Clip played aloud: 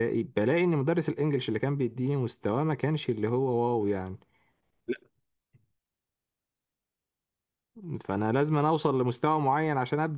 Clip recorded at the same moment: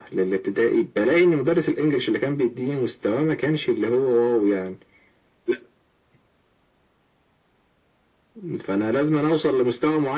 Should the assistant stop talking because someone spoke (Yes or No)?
No